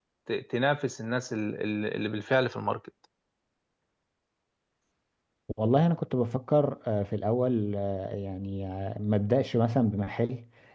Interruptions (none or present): none